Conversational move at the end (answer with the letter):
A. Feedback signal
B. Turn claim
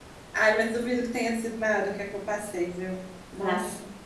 B